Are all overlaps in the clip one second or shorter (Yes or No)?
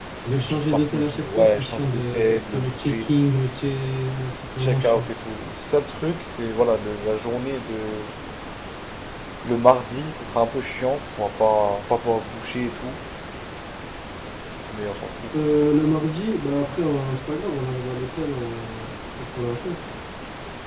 No